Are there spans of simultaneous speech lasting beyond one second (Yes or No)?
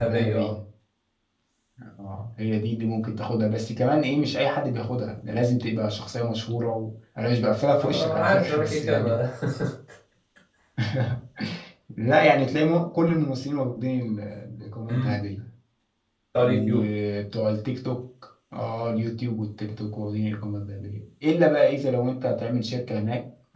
Yes